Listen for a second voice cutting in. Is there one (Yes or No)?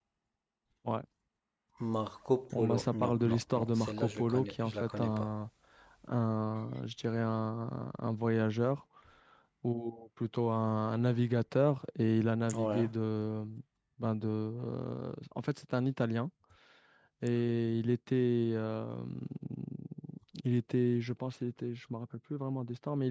Yes